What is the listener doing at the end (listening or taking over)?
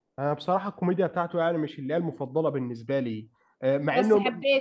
listening